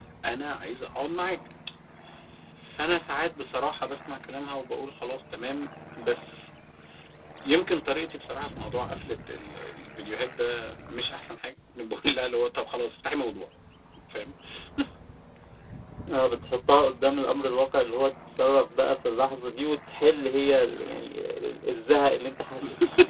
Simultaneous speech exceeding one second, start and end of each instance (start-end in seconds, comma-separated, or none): none